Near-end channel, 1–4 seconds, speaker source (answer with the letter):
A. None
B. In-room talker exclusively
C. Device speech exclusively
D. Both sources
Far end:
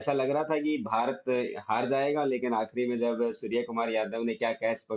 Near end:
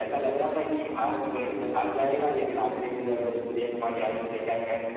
C